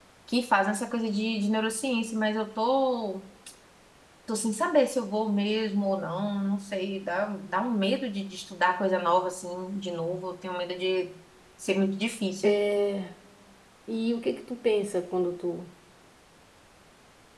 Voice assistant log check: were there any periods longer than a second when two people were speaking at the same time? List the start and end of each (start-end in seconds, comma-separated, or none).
none